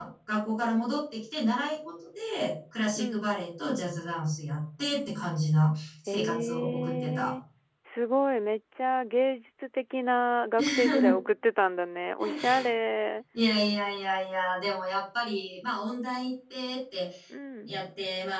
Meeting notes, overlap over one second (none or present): present